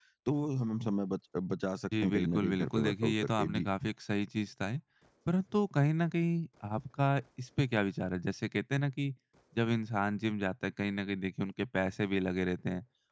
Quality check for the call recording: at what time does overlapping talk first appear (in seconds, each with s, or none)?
1.9 s